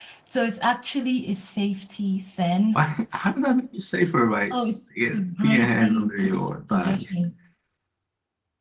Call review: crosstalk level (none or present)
present